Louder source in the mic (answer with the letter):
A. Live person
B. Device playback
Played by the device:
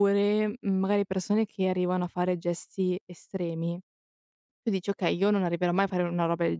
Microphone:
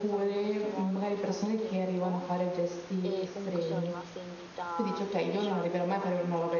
B